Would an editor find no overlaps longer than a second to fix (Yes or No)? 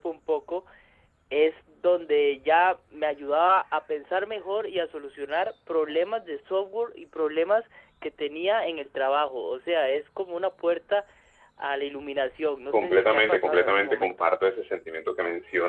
No